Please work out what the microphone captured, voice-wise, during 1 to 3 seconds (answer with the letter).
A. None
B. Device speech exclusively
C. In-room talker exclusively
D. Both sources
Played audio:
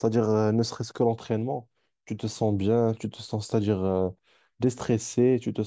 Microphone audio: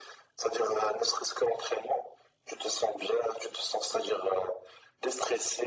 B